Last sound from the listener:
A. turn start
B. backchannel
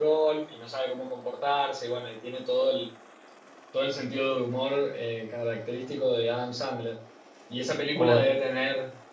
B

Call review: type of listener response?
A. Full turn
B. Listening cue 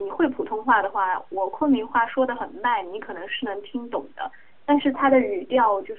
B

